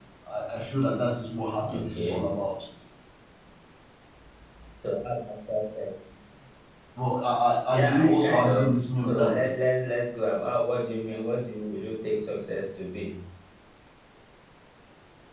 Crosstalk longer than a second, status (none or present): present